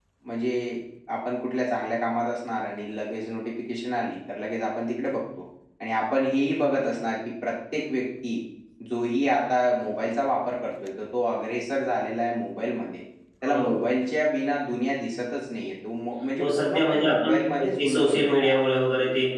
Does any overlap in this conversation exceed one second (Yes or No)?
Yes